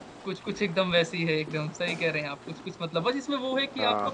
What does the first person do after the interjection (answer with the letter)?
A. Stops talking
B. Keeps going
B